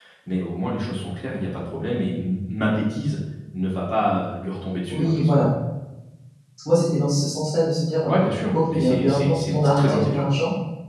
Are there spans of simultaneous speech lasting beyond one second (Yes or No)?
Yes